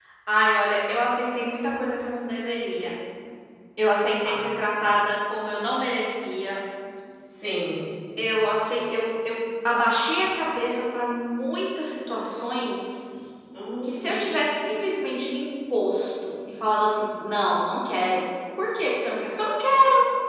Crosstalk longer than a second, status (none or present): none